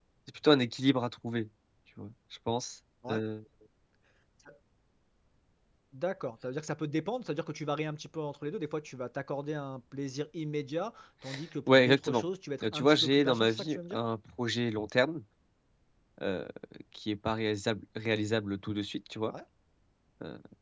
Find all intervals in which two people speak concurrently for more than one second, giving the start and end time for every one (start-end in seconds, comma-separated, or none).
12.6-14.0